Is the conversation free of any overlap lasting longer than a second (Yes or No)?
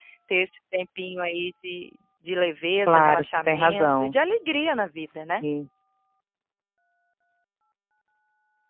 No